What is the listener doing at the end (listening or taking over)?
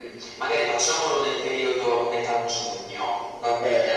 taking over